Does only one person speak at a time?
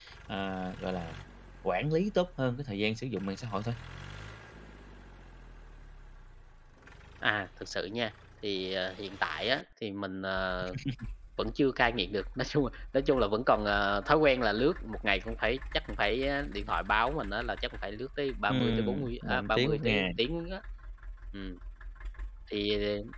No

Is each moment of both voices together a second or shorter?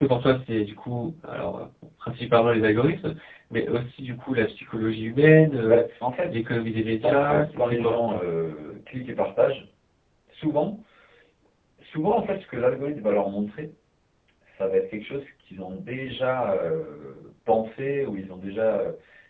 No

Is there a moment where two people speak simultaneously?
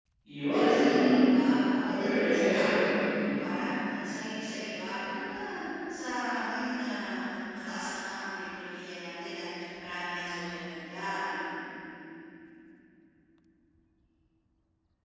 Yes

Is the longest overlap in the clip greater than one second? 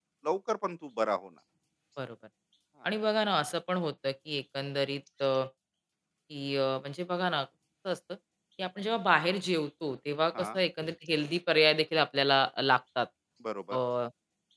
No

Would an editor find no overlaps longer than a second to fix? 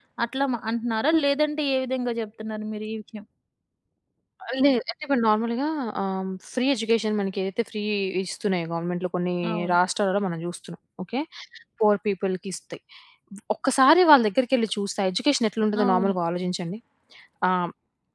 Yes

